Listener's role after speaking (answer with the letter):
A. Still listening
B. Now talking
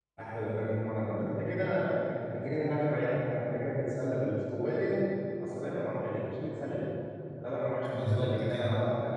A